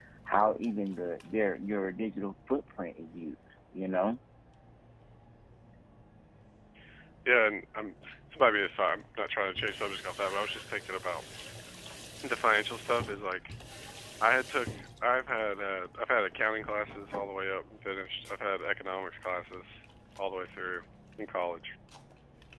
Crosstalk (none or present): none